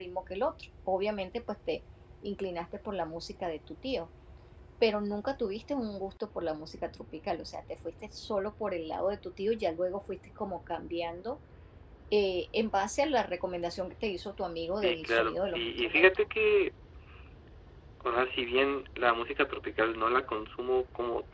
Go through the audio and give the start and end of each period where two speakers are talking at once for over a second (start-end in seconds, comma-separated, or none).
14.8-16.3